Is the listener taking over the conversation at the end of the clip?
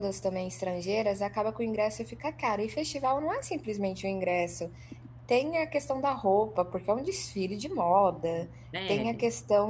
No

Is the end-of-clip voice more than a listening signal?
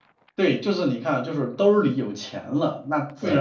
No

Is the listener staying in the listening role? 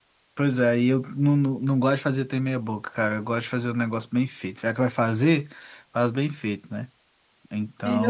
No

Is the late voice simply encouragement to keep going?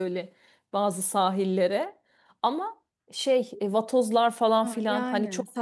No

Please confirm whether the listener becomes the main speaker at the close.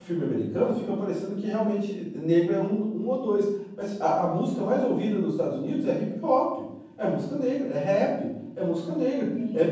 No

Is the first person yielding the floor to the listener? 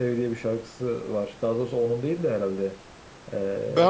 Yes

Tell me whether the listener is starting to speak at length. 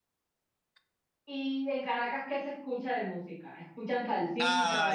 Yes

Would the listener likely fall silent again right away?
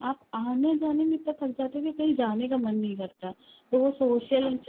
Yes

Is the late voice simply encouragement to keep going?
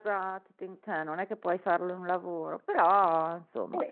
No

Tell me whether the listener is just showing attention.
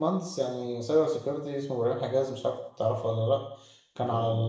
Yes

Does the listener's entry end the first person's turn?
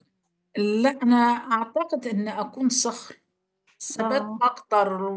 No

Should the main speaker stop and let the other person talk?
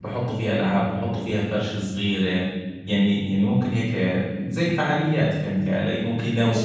Yes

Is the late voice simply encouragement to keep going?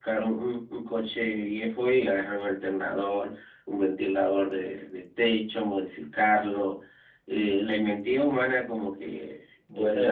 Yes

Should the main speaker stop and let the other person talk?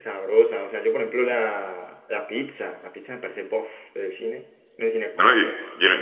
Yes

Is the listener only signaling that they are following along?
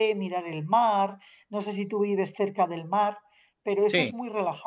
Yes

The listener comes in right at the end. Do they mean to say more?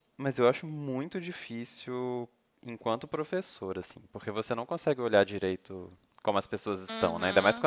Yes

